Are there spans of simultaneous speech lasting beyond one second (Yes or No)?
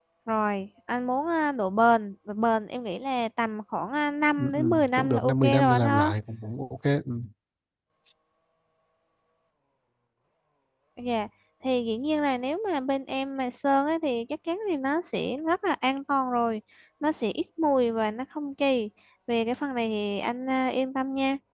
Yes